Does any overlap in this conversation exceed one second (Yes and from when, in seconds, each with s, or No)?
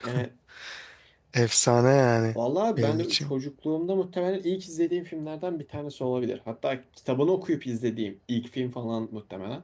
No